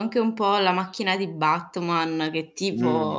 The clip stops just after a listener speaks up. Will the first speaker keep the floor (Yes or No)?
Yes